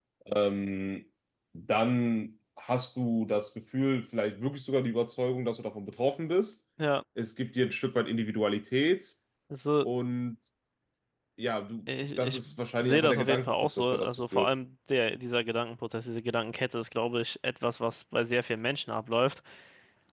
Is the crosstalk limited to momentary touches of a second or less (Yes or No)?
No